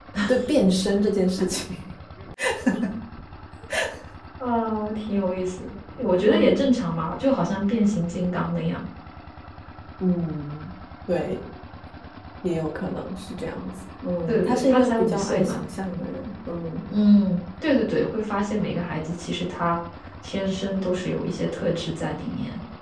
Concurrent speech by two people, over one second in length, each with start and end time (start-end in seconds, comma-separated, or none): 14.3-15.6